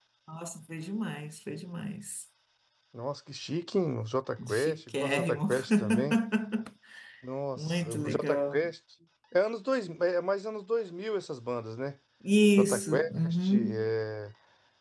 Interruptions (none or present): present